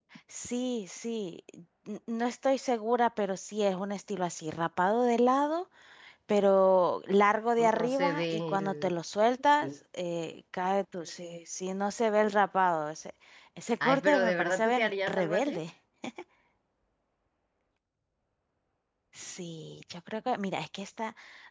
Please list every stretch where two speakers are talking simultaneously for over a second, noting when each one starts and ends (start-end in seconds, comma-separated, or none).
7.6-8.9, 13.8-15.6